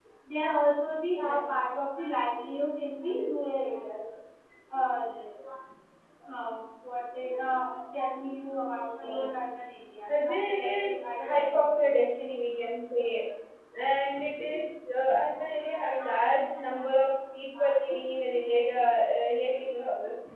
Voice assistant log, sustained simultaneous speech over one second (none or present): present